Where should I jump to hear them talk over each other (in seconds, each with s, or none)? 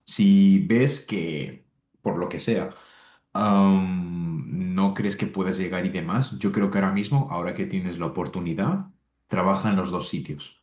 none